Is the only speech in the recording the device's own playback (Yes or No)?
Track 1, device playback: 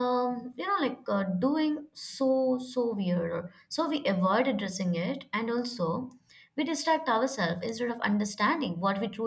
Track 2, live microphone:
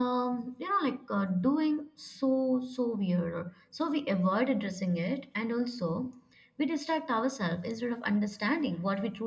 Yes